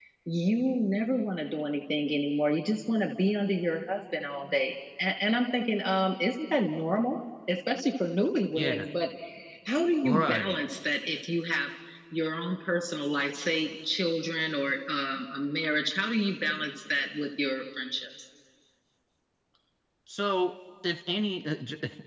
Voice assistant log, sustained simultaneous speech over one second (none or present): none